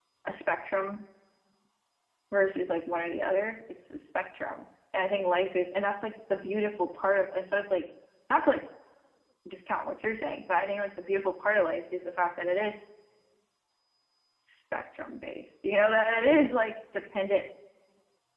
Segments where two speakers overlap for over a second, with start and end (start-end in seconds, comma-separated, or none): none